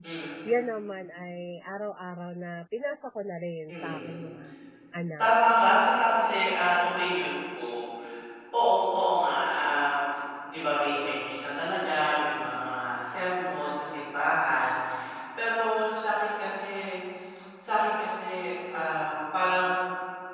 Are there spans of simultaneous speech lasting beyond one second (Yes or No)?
No